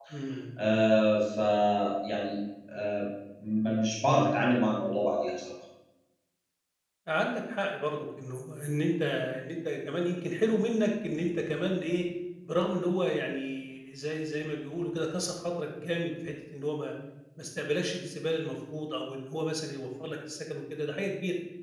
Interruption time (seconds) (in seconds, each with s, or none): none